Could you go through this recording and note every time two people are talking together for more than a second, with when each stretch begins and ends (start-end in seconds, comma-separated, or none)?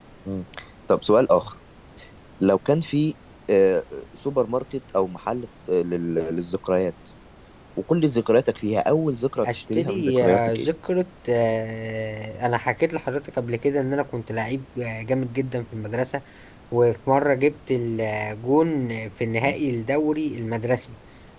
9.4-10.7